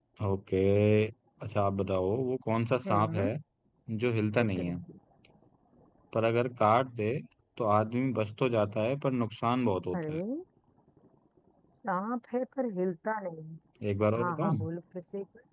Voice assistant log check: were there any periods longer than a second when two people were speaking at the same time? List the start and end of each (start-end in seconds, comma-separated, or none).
none